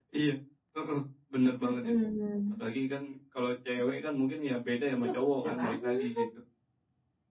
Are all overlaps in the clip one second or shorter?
No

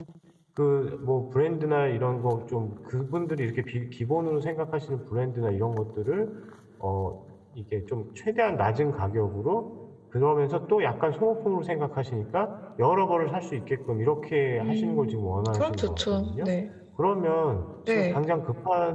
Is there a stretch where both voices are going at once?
Yes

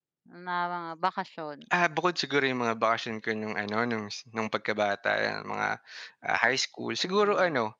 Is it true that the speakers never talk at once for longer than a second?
Yes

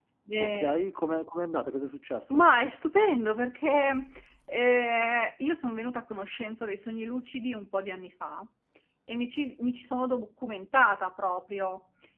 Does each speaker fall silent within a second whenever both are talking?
Yes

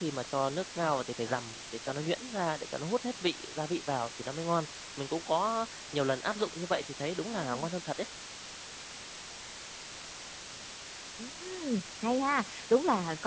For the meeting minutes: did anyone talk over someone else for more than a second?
No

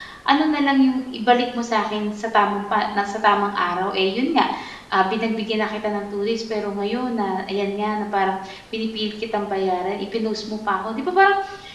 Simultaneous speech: No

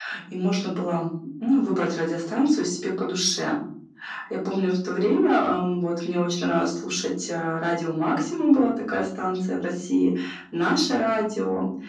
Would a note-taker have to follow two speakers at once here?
No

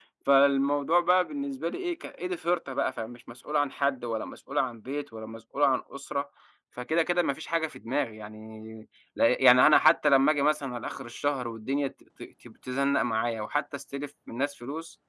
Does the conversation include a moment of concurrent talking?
No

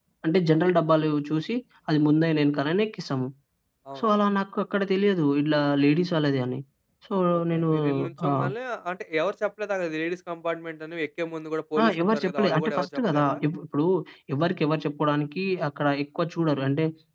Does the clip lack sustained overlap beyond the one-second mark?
No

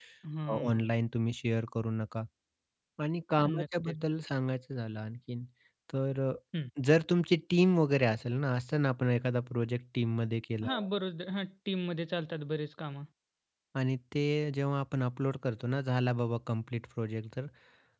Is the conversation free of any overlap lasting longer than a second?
Yes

